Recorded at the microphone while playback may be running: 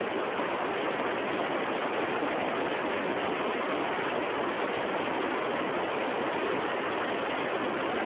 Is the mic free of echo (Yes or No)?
Yes